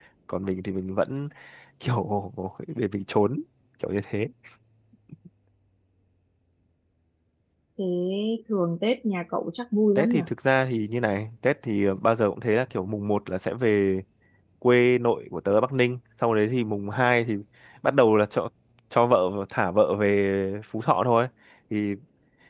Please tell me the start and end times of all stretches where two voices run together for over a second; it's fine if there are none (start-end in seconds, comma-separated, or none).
none